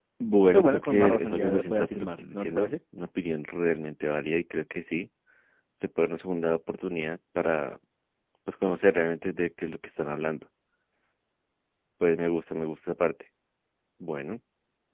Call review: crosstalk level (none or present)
present